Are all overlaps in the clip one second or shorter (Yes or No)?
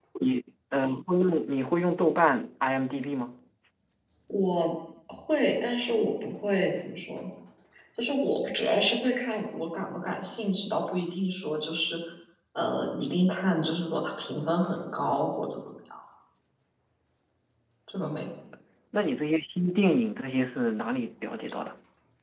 Yes